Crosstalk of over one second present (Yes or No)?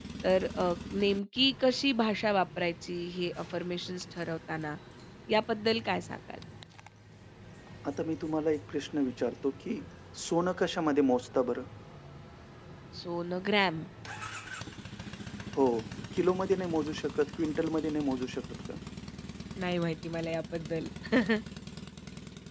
No